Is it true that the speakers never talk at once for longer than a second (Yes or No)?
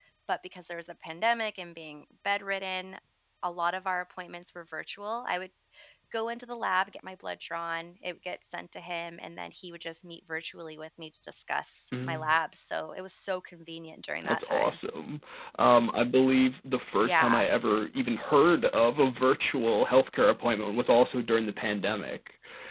Yes